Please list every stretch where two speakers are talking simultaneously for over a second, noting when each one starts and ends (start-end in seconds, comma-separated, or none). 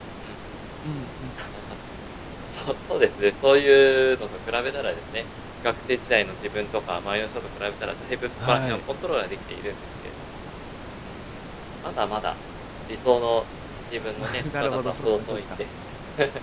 14.2-15.4